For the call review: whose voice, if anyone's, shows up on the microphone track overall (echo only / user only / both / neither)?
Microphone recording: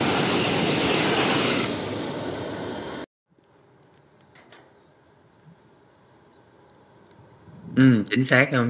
user only